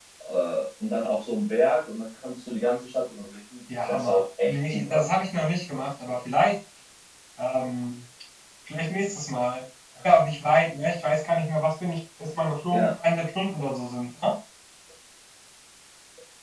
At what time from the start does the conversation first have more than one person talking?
3.7 s

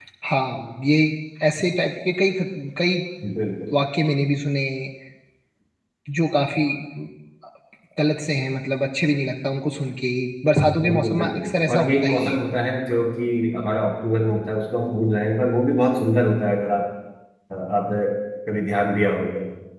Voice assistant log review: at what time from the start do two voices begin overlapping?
10.8 s

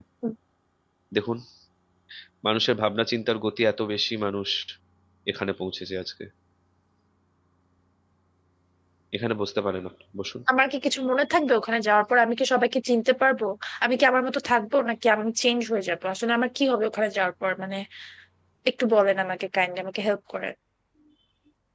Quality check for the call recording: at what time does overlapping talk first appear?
none

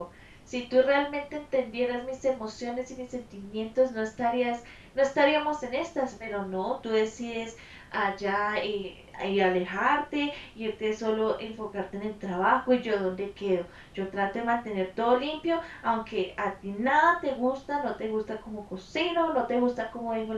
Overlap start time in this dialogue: none

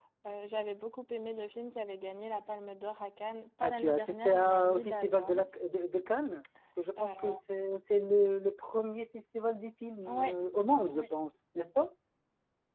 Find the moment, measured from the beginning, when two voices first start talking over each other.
3.6 s

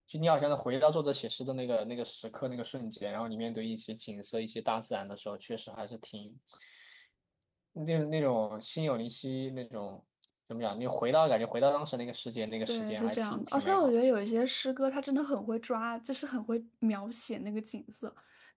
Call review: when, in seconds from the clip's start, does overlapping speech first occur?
12.7 s

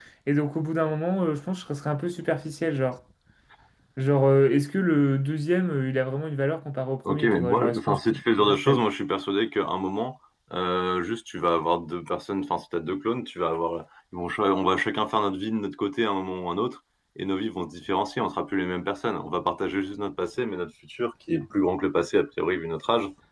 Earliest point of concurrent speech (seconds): 7.0 s

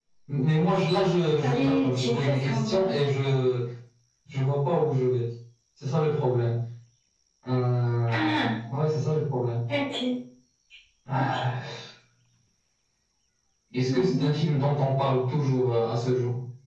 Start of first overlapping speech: 1.4 s

